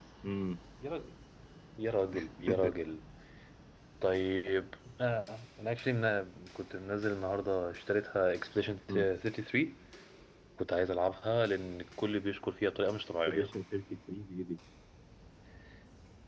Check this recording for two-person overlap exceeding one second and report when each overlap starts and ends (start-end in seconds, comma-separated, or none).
none